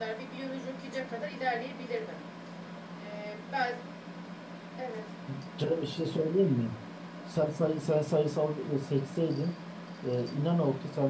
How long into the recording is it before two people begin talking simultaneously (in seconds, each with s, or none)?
none